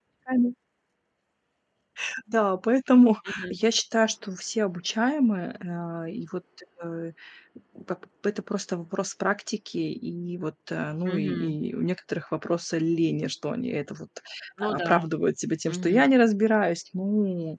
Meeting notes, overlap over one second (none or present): none